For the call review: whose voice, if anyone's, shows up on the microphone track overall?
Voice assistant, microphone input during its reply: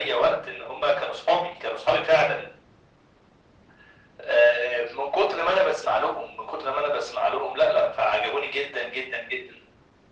echo only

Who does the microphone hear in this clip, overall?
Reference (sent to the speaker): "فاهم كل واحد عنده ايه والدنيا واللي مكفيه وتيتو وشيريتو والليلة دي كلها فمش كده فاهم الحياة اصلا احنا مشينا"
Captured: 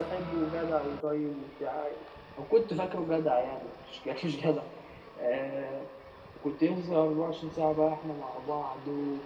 user only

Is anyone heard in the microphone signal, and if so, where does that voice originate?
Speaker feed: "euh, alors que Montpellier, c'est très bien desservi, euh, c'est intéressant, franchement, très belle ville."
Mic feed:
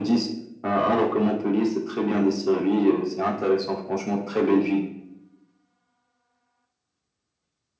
echo only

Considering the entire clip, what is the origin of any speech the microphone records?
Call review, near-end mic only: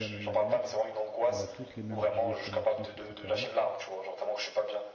both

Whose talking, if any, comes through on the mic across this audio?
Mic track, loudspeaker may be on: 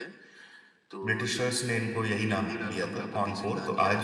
both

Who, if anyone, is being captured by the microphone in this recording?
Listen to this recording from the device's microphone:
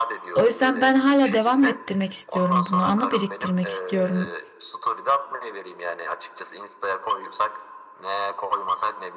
both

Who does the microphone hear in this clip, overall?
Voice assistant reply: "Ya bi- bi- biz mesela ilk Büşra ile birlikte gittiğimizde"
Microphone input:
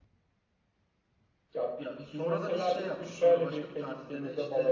both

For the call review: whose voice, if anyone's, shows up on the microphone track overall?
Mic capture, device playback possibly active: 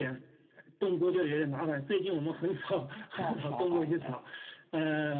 both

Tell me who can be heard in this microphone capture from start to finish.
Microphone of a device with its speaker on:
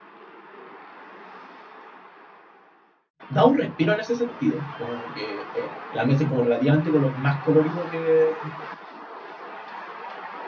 user only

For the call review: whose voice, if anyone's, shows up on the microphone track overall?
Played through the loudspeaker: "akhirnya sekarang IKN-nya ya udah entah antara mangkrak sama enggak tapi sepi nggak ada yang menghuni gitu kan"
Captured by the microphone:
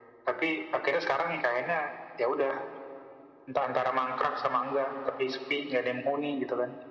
echo only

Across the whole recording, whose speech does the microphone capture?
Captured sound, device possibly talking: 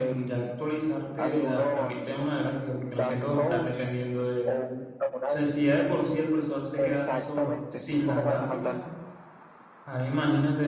both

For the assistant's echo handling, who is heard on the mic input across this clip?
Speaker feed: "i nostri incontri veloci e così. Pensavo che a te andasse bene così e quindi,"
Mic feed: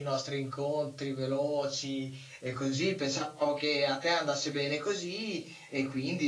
echo only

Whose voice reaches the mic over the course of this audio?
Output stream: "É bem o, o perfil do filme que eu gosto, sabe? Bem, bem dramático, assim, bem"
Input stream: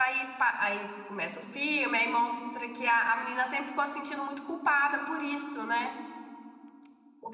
user only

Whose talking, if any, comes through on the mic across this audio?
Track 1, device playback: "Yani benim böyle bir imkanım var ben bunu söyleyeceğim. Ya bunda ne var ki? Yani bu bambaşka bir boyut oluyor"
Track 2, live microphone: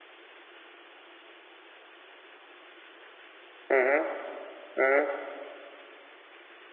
user only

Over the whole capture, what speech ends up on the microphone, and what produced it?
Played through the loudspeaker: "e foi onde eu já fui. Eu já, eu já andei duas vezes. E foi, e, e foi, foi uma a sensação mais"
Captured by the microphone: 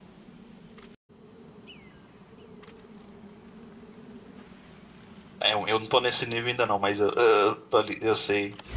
user only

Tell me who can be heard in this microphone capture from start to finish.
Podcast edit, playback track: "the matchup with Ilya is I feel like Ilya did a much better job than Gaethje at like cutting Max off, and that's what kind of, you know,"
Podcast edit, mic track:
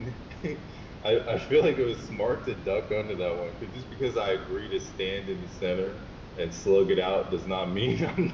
user only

